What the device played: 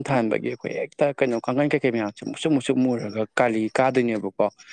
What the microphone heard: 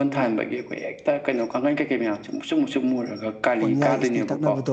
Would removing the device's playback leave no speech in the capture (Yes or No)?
No